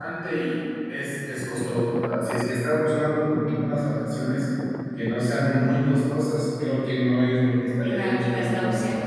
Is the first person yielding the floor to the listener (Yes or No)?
Yes